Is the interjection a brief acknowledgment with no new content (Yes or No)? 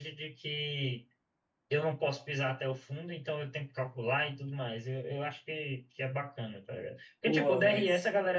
Yes